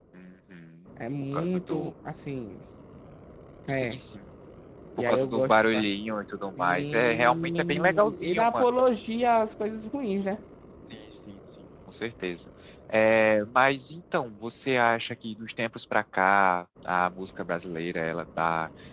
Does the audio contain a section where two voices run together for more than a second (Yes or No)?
Yes